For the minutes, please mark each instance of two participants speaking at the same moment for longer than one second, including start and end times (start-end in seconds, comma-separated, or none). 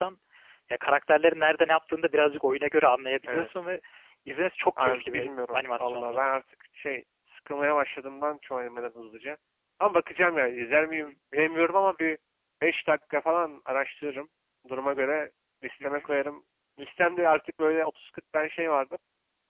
4.8-6.2